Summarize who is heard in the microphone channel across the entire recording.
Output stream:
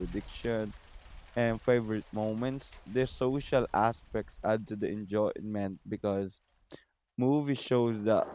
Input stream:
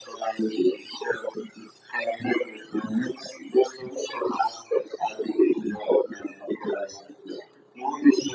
echo only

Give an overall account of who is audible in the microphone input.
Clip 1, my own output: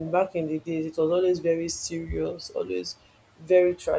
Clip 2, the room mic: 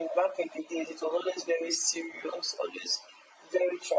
echo only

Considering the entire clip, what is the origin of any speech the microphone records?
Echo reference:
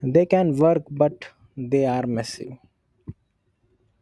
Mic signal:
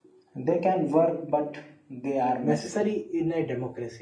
both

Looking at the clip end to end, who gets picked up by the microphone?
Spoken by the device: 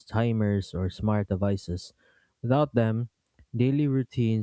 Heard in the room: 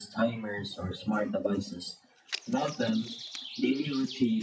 echo only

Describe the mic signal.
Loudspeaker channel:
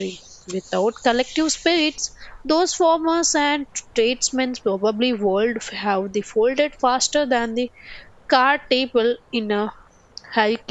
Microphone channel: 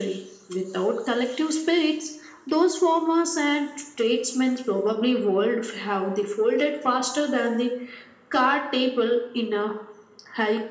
echo only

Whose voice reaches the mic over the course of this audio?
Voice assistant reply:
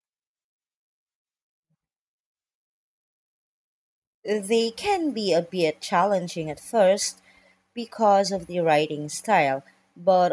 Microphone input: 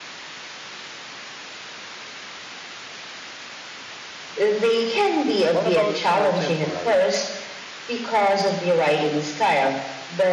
both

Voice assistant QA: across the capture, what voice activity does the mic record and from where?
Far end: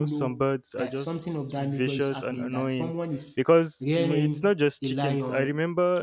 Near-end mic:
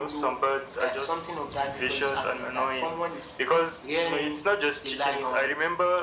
echo only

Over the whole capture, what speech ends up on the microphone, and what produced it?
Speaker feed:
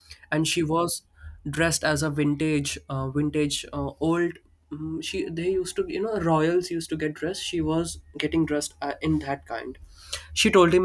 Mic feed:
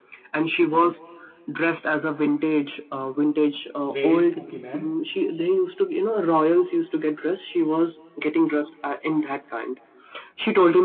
both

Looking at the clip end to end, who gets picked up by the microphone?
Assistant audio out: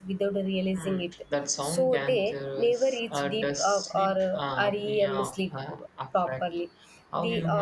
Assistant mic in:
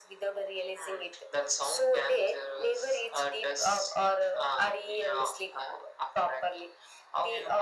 echo only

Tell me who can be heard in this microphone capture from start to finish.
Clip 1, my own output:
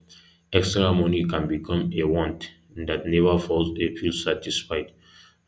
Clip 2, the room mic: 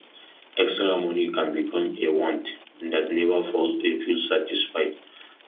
echo only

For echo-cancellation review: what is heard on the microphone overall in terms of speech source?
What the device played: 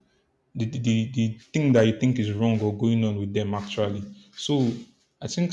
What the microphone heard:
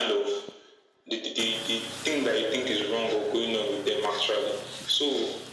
echo only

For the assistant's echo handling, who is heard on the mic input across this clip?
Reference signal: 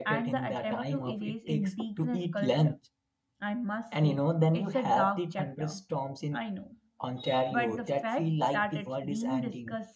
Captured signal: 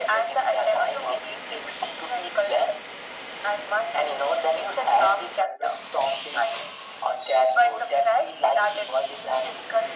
echo only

